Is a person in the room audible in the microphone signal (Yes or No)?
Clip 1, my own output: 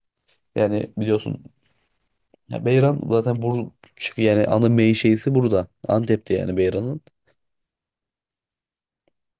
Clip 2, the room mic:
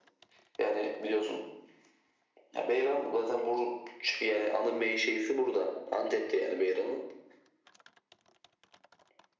No